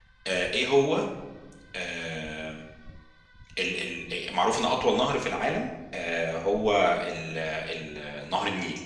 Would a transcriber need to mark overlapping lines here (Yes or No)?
No